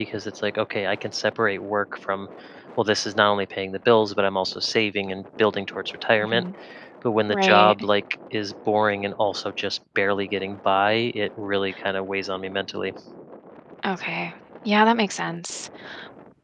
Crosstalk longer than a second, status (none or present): none